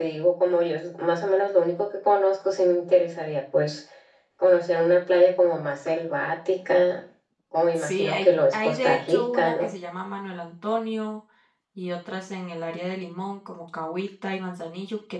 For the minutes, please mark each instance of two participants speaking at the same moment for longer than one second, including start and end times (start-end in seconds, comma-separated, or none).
7.8-9.7